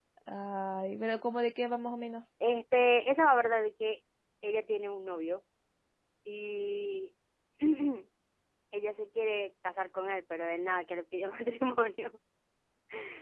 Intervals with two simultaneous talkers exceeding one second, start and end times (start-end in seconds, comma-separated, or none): none